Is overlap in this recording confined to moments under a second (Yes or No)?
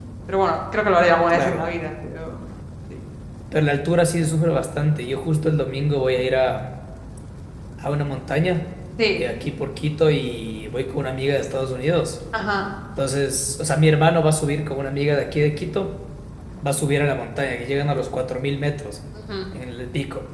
Yes